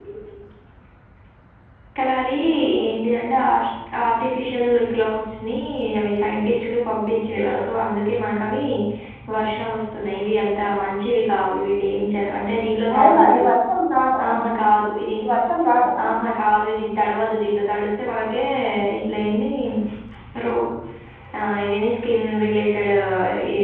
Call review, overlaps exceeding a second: none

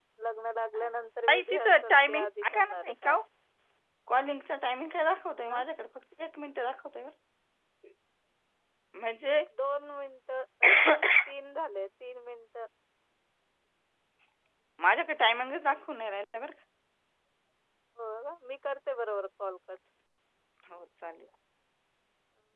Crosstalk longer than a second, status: present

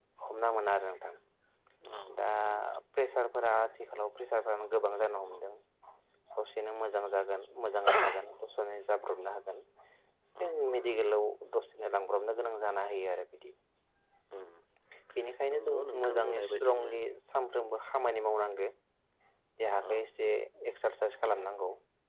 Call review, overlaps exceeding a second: present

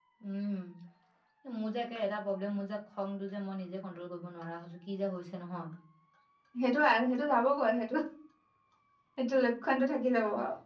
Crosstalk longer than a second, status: none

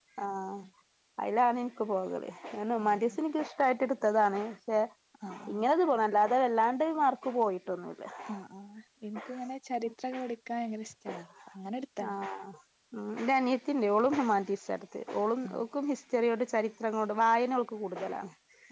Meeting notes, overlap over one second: none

